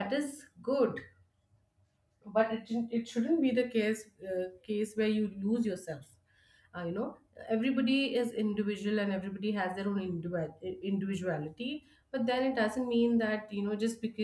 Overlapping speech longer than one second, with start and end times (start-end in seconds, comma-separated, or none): none